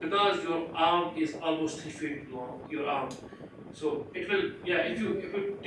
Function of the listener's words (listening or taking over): listening